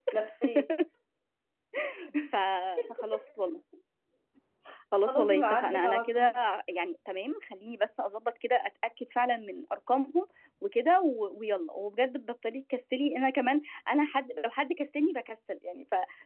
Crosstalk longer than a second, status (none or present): present